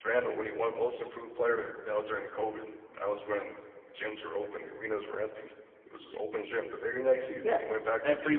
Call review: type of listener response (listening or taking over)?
taking over